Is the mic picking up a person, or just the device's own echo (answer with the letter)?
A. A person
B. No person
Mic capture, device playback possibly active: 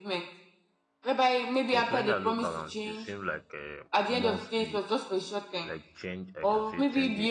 A